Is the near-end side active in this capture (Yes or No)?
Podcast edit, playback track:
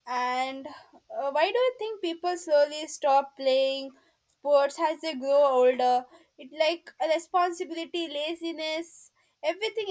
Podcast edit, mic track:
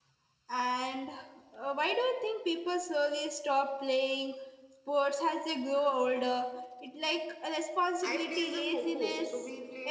Yes